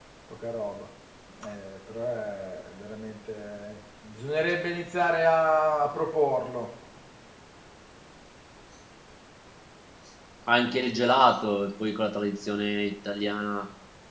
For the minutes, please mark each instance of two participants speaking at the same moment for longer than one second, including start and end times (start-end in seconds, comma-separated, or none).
none